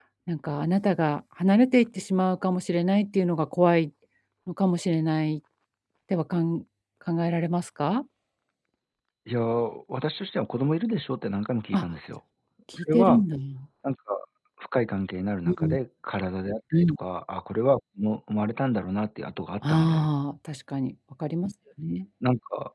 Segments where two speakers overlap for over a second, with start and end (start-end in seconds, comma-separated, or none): none